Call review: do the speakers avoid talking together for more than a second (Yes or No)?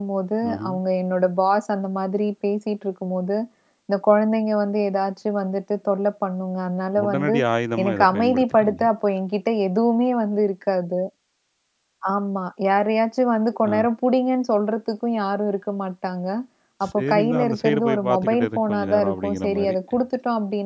No